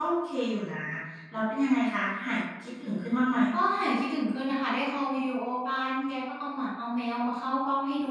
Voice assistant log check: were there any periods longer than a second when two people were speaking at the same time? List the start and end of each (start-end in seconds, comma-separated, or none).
none